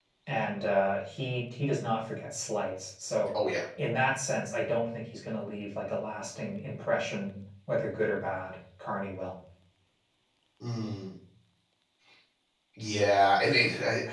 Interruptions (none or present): none